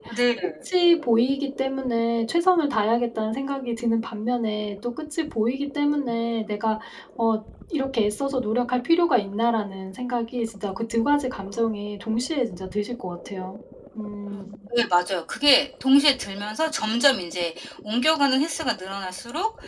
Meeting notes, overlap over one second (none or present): none